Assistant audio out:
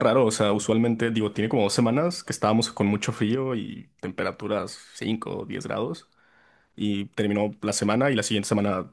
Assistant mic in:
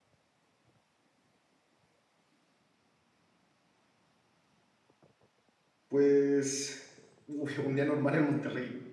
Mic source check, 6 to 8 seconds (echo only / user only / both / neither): user only